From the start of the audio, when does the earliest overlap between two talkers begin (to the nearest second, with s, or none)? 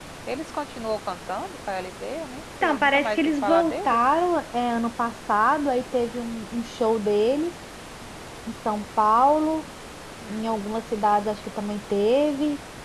3 s